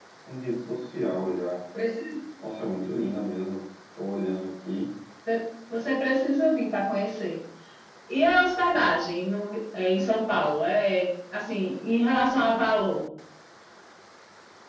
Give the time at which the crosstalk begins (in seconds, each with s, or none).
none